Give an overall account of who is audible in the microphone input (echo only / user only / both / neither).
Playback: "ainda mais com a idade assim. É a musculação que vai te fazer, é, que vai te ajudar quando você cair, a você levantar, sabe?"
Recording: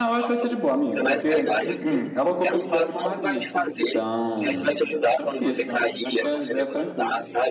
both